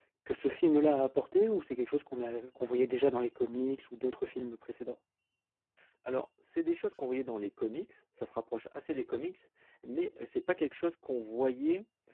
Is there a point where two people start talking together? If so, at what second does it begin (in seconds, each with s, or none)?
none